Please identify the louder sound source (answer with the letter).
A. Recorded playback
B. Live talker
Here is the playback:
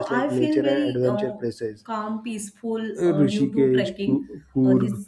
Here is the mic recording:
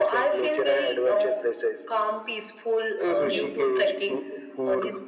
A